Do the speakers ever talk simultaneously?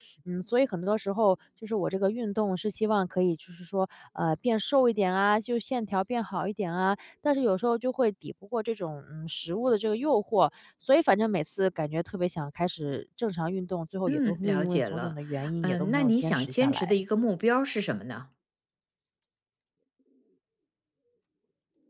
Yes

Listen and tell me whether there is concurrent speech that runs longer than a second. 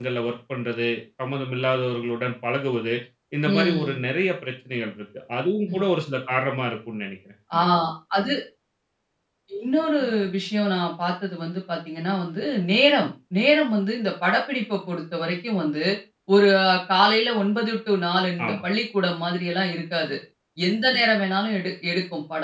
No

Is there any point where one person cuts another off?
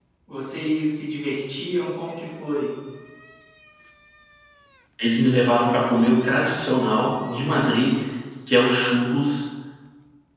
No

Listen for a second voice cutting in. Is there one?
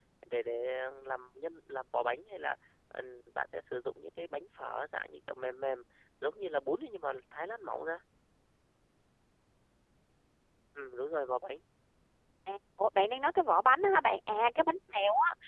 No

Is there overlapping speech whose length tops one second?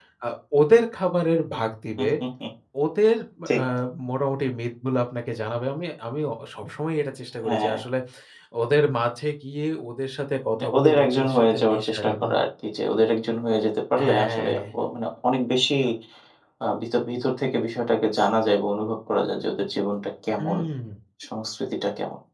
Yes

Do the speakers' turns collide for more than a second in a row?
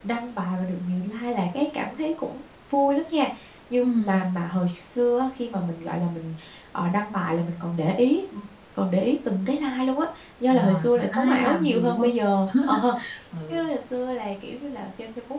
Yes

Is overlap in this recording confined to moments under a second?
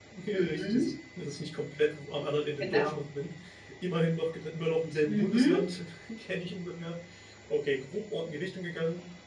Yes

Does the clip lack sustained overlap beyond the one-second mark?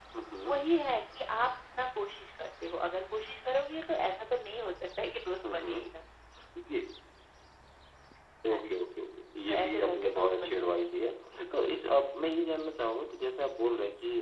No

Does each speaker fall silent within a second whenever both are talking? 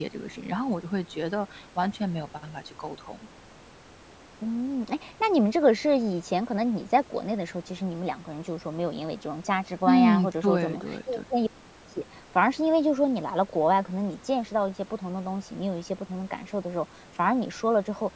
No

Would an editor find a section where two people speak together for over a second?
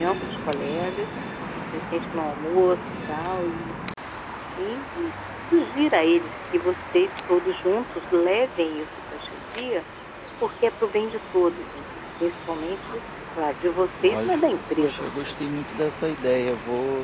Yes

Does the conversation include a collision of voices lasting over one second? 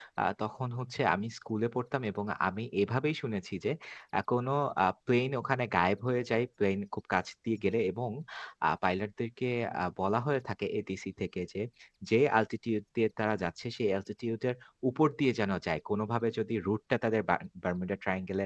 No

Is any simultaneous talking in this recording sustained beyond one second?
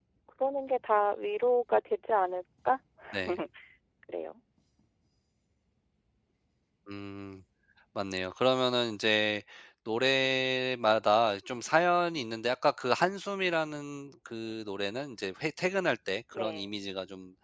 No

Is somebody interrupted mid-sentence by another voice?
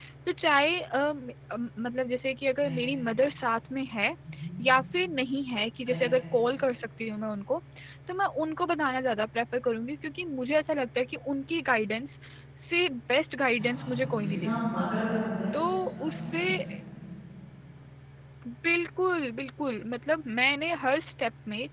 Yes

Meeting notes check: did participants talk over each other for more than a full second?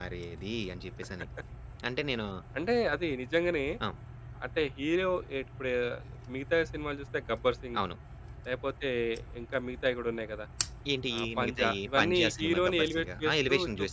Yes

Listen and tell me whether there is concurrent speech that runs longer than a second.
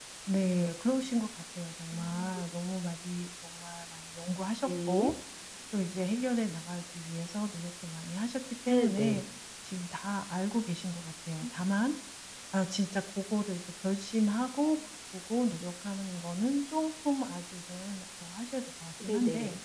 No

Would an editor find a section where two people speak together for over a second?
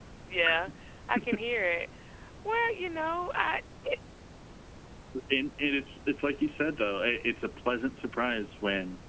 No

